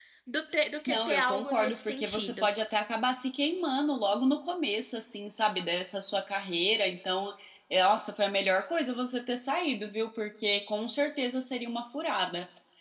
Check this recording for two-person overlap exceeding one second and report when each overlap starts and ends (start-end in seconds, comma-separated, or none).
0.9-2.5